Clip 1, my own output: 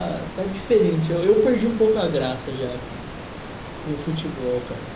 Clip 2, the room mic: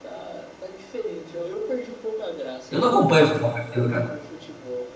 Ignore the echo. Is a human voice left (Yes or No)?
Yes